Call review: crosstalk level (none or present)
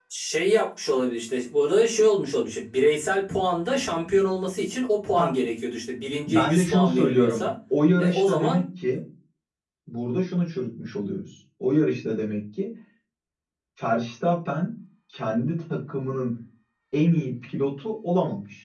present